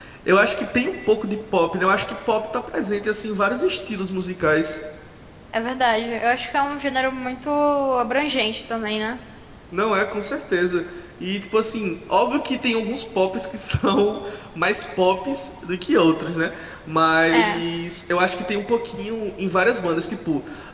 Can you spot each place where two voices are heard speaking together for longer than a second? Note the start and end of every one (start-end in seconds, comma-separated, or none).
none